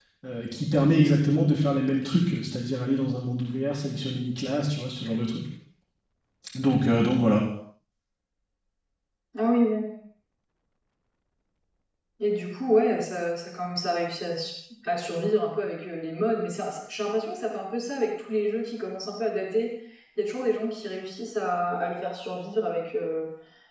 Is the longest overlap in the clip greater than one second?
No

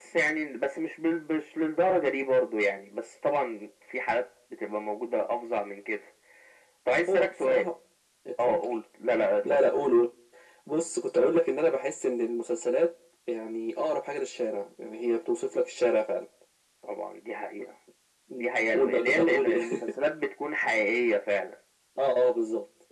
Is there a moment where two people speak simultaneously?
Yes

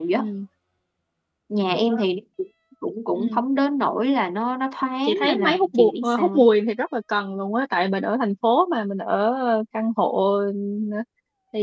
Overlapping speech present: Yes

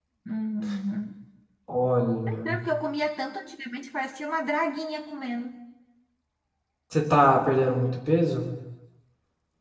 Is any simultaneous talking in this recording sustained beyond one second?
No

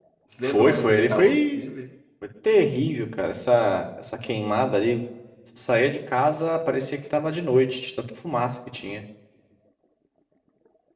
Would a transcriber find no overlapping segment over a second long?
No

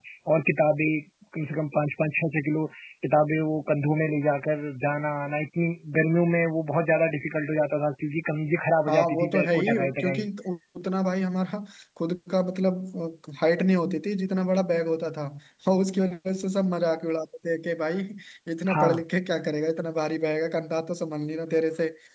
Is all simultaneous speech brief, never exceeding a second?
No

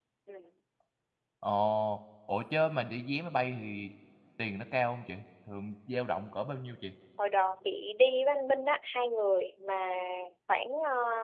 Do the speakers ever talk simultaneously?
No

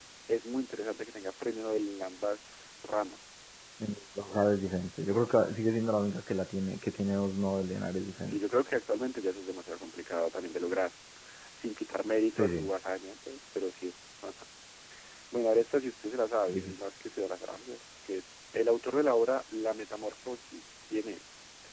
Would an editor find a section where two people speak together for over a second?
No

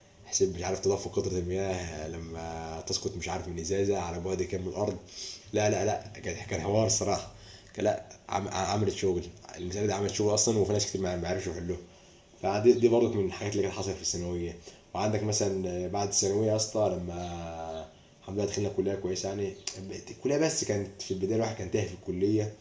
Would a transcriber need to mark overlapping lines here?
No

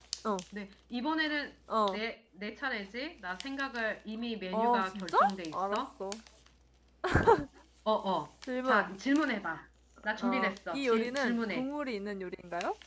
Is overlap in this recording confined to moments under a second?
No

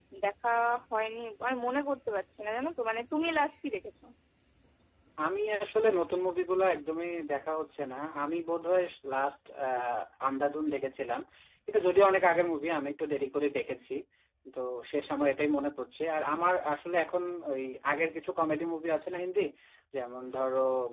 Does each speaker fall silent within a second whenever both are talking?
Yes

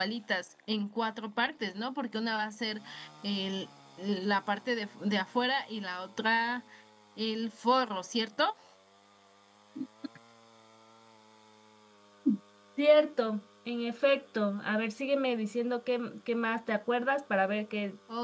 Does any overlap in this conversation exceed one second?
No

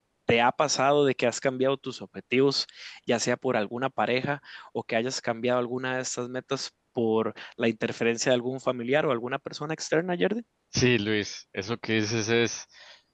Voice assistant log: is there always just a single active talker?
Yes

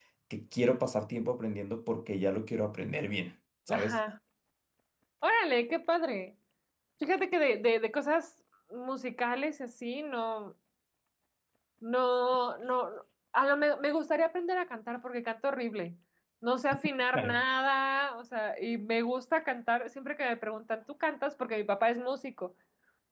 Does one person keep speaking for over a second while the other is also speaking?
No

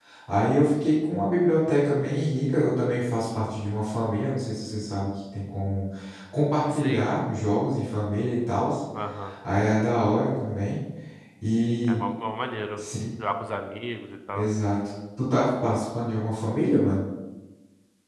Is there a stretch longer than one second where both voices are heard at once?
No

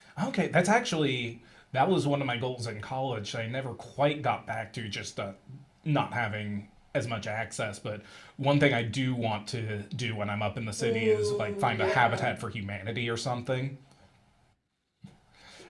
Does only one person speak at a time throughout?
No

